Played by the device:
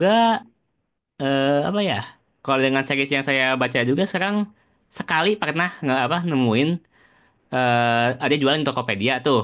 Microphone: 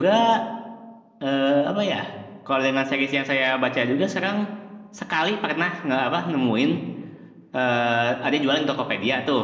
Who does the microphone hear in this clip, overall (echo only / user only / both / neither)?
echo only